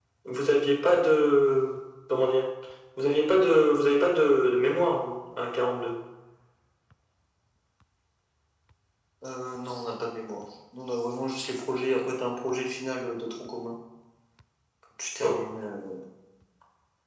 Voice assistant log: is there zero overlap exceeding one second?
Yes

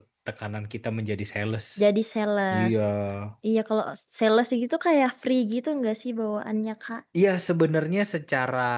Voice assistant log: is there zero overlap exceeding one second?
Yes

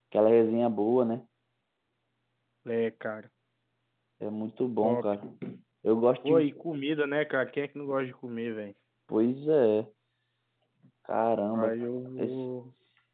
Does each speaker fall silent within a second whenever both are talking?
Yes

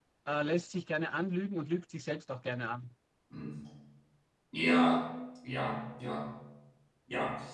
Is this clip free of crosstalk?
Yes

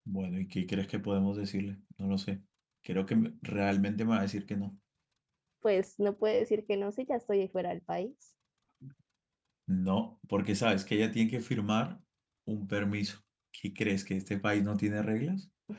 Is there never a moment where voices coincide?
Yes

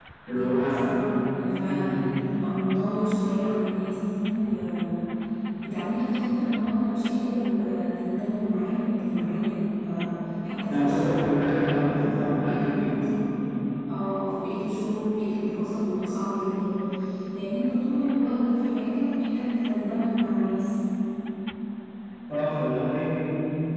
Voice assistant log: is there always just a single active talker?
No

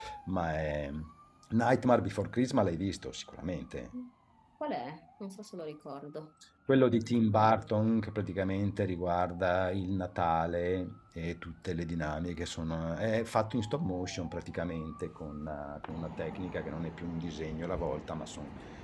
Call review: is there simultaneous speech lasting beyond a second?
No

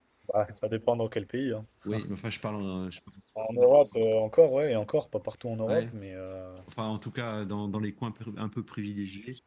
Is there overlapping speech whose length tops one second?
No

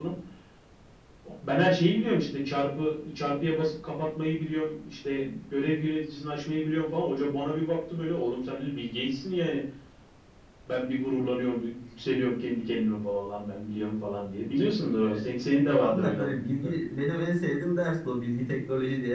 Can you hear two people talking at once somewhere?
Yes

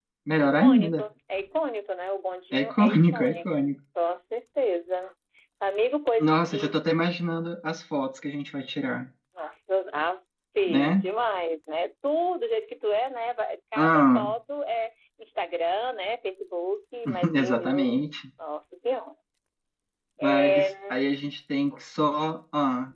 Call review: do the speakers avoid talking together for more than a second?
No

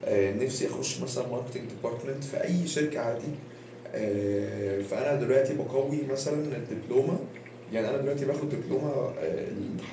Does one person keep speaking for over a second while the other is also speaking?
No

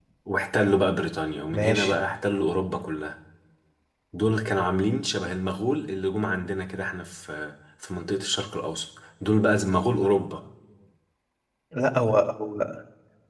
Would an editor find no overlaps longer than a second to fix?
Yes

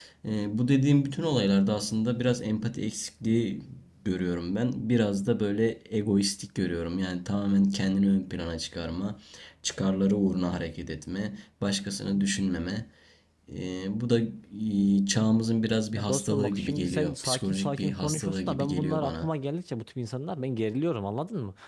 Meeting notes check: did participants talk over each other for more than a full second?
Yes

